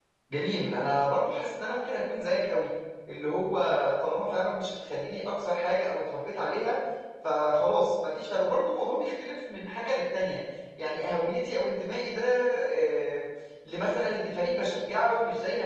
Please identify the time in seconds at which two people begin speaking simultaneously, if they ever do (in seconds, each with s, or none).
none